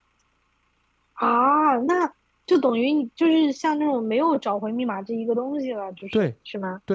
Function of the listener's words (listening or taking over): taking over